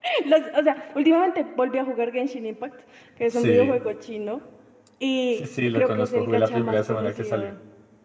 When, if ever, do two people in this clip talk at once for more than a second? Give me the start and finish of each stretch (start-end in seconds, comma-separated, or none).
5.4-7.5